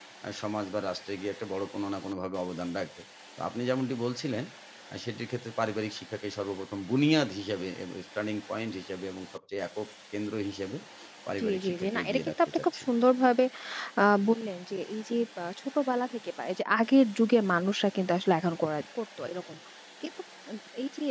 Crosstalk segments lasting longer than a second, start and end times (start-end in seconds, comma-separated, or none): 11.4-12.8